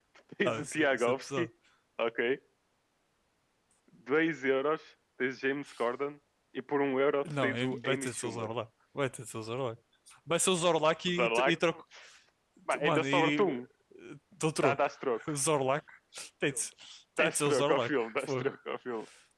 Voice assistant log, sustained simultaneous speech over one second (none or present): present